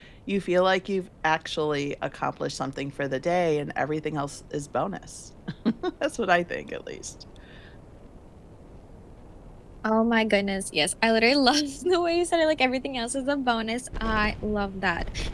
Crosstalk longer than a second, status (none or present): none